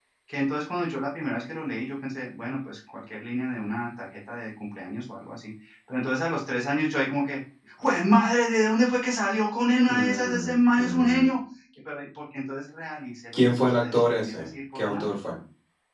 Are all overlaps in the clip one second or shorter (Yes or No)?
No